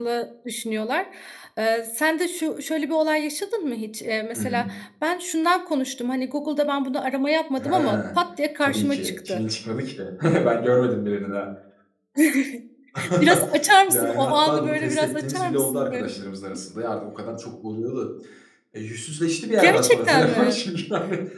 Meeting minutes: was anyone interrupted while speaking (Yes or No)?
Yes